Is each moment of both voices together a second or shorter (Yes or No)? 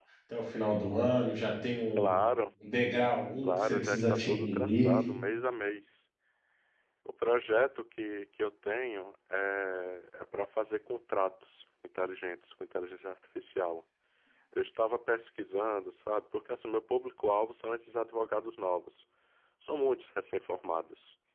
No